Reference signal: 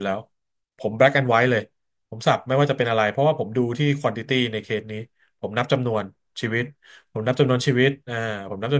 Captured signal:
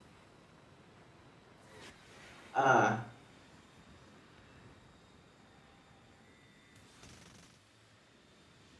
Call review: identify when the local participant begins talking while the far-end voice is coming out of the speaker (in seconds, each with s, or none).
2.5 s